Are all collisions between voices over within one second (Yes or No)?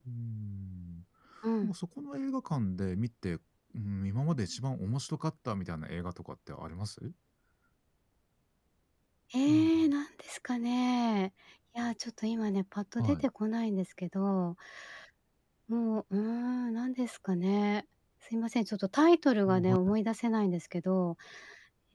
Yes